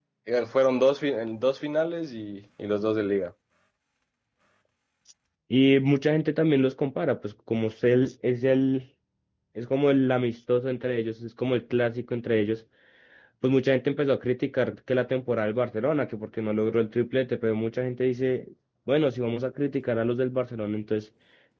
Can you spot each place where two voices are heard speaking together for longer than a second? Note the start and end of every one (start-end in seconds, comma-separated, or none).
none